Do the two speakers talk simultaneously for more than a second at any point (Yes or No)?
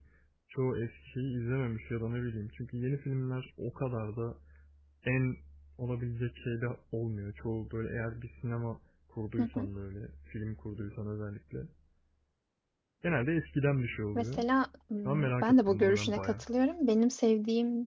Yes